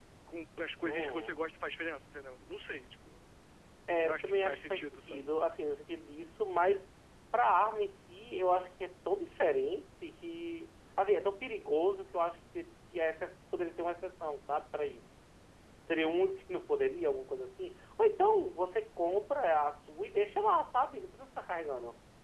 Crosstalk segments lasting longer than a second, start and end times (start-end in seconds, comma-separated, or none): 4.0-5.3